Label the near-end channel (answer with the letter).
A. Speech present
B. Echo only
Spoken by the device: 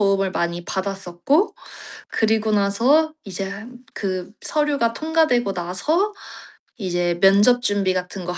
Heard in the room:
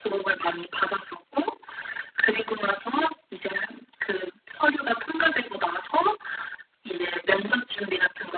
B